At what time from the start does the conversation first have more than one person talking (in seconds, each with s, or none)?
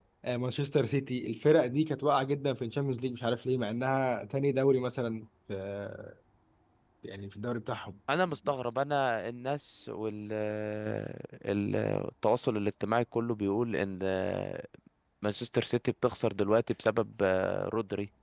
none